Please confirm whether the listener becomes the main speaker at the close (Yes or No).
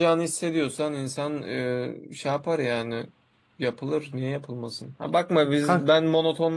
No